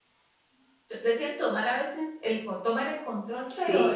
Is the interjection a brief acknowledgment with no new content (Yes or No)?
Yes